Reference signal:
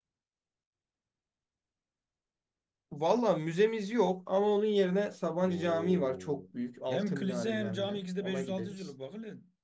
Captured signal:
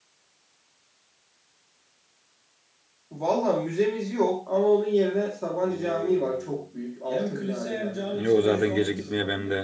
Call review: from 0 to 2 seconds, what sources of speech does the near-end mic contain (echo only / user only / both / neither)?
neither